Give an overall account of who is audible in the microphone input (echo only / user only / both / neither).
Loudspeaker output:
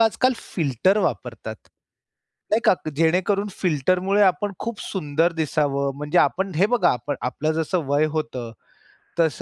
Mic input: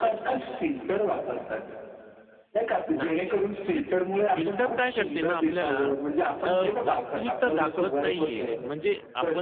both